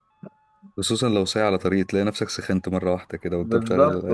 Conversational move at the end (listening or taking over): taking over